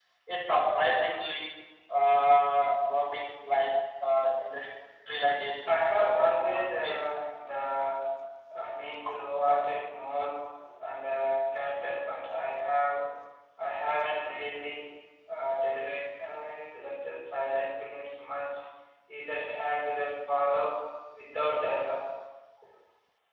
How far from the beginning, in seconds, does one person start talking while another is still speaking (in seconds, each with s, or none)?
5.7 s